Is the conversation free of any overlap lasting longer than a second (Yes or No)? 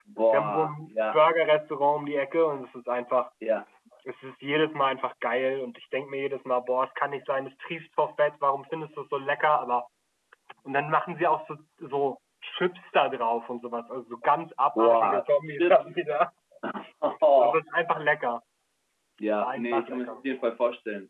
No